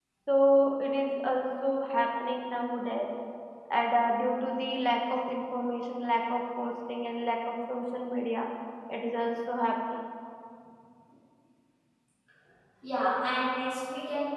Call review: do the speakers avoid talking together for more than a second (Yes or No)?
Yes